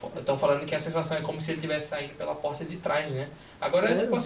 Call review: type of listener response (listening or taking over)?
listening